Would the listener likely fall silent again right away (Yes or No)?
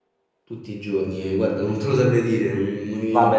No